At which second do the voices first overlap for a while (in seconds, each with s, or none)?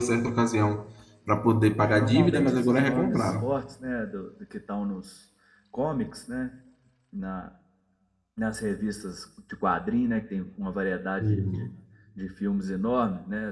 1.8 s